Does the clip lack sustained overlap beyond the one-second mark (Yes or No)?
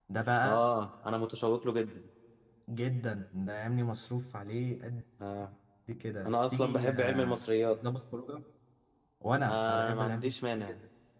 No